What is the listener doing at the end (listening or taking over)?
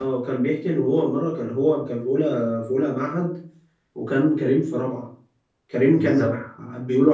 listening